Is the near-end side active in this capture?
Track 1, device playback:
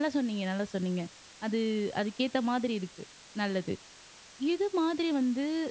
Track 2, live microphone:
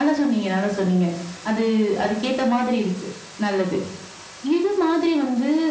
No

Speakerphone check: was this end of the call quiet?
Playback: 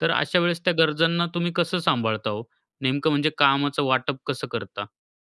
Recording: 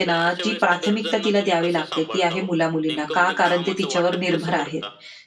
No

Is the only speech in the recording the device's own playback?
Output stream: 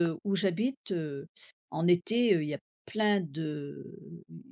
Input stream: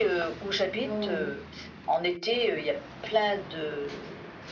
No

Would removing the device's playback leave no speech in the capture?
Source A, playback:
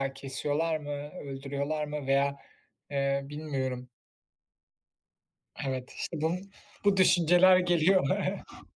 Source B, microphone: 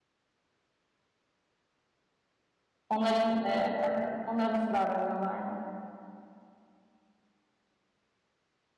No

